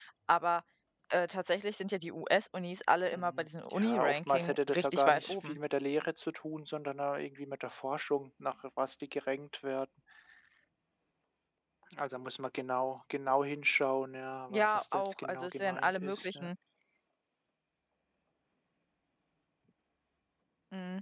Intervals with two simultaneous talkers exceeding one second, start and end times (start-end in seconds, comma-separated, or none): 3.1-5.6, 14.5-16.5